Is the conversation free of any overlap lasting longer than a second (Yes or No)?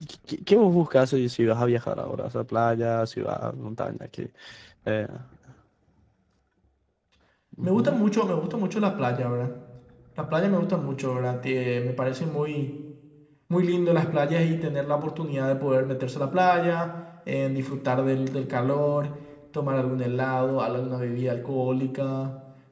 Yes